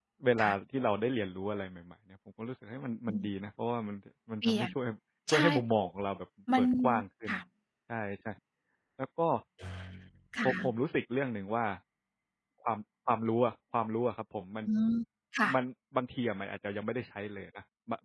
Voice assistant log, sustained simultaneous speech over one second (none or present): none